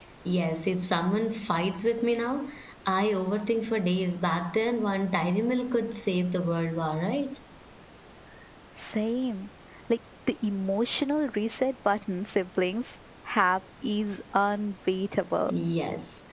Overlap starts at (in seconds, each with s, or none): none